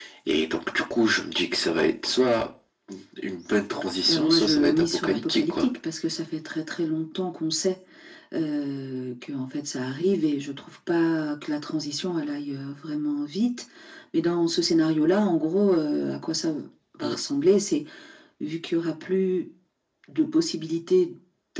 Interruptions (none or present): present